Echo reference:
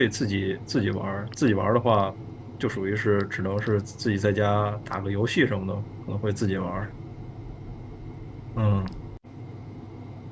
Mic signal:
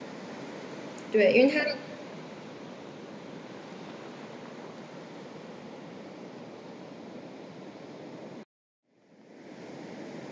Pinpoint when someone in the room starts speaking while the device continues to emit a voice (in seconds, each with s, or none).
1.1 s